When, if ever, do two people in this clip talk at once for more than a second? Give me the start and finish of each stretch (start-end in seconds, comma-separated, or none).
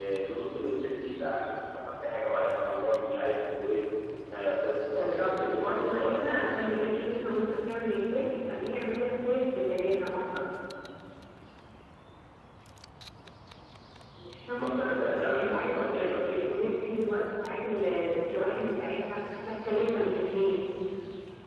4.9-7.0, 14.6-16.4